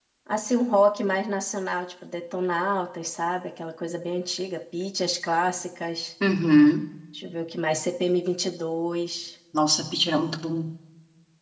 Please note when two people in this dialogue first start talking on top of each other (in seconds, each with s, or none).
none